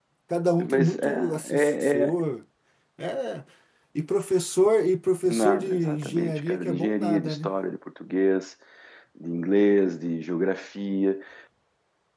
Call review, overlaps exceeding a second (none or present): present